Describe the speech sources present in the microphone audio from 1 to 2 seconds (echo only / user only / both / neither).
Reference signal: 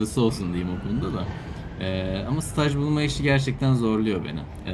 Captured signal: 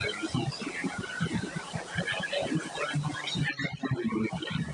echo only